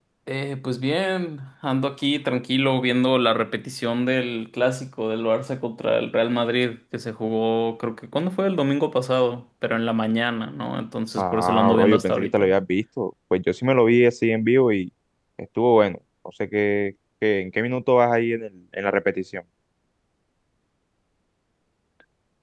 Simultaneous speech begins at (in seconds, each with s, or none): 11.2 s